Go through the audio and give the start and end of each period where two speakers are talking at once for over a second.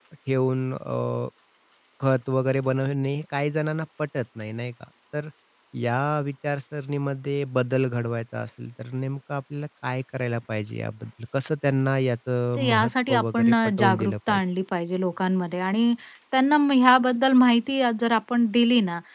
12.6-14.4

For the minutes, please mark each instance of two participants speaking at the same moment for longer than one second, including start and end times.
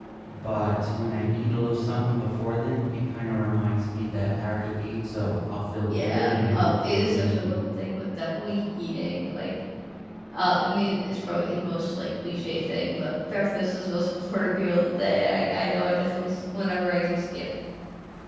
5.9-7.6

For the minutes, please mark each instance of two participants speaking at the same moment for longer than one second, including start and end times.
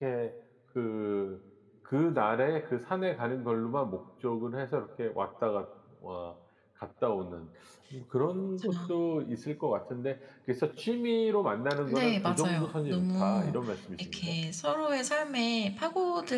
11.9-13.5

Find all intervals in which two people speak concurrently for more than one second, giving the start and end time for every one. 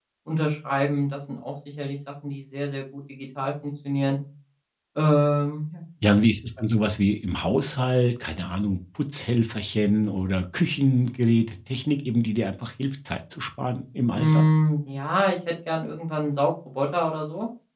none

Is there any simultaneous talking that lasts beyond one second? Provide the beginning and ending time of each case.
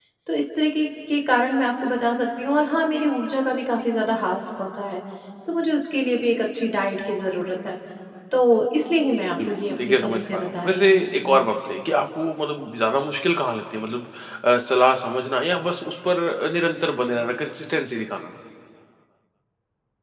9.5-11.1

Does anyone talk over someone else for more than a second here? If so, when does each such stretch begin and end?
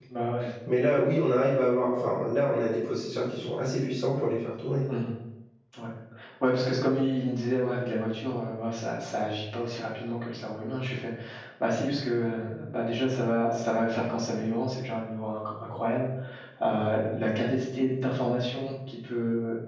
none

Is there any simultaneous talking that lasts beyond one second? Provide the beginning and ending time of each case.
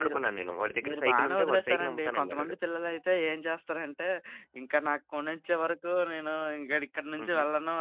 0.9-2.5

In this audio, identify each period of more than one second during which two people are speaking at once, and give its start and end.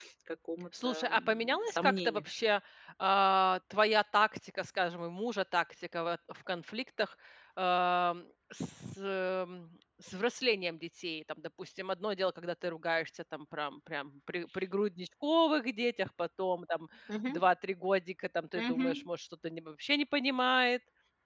0.8-2.2

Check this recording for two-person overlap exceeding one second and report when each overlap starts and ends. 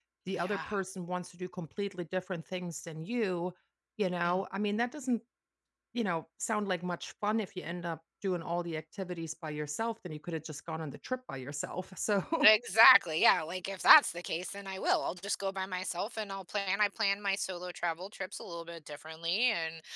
none

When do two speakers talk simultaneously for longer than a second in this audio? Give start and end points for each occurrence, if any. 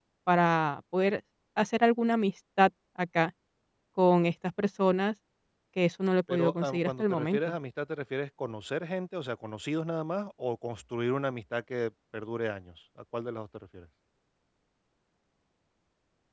6.3-7.5

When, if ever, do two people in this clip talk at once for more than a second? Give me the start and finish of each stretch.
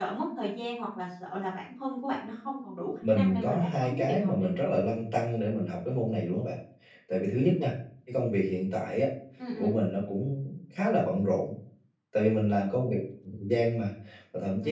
3.1-4.7

